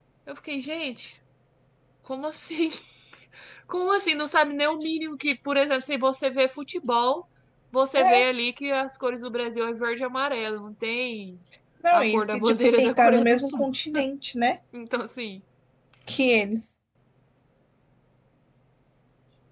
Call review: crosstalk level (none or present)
present